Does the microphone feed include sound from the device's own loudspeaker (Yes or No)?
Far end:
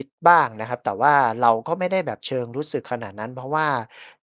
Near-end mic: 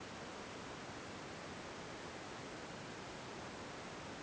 No